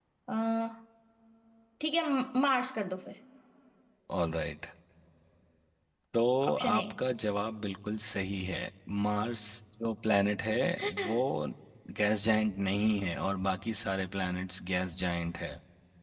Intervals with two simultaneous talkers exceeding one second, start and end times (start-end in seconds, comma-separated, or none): none